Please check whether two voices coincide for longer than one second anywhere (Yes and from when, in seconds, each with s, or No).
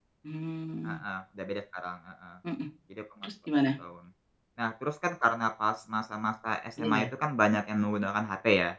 No